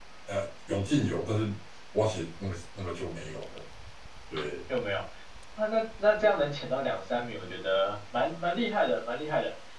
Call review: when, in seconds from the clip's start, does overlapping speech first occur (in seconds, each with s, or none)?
none